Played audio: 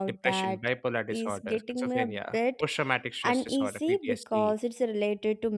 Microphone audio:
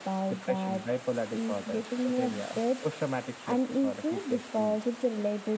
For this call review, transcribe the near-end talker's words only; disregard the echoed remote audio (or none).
none